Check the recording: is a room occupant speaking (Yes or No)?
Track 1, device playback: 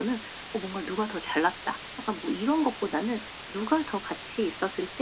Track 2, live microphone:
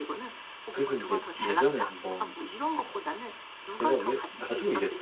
Yes